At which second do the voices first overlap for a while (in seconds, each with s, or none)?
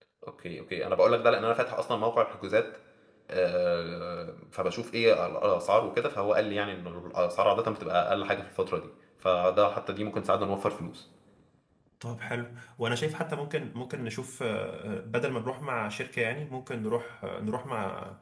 none